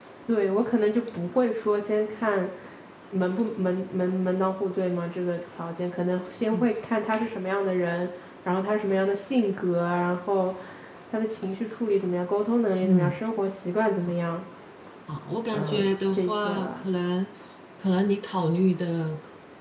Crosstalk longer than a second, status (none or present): present